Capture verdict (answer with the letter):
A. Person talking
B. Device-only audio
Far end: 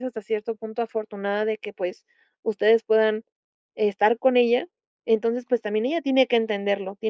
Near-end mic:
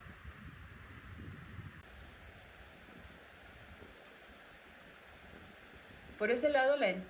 A